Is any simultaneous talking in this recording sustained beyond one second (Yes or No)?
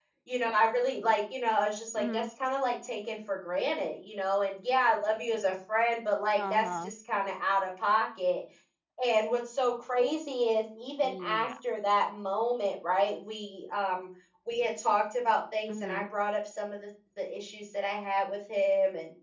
No